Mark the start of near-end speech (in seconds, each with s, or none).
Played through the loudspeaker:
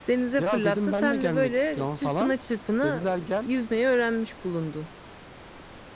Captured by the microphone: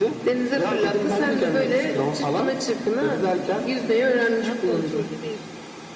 4.4 s